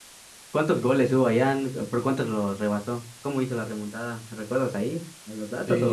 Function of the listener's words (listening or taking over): taking over